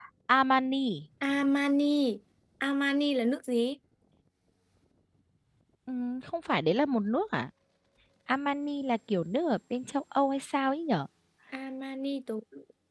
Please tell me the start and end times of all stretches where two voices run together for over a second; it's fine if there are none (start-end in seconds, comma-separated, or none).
none